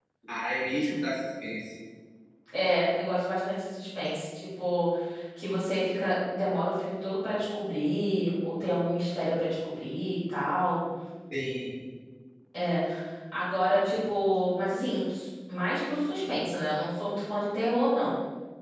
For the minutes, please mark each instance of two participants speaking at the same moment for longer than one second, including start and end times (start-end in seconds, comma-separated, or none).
none